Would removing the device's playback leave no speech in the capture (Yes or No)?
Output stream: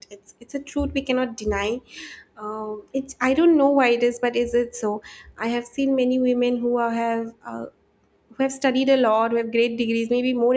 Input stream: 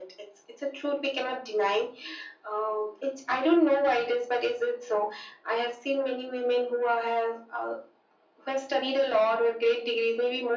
Yes